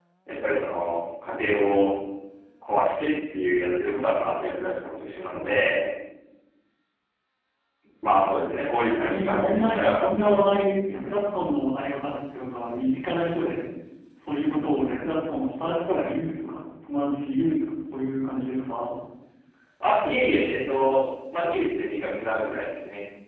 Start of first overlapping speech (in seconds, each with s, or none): 8.6 s